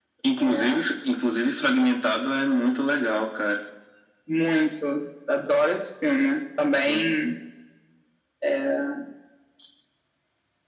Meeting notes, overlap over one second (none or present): none